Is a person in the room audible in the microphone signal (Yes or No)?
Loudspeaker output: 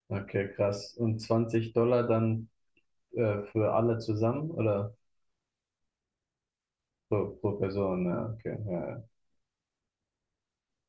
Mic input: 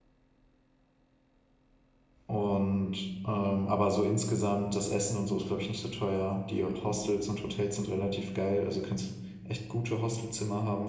Yes